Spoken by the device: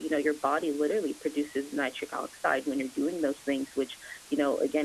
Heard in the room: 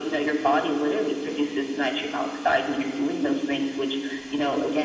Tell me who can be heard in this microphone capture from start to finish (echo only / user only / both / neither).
echo only